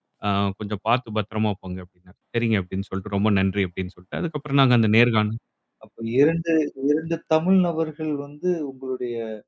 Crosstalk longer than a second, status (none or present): none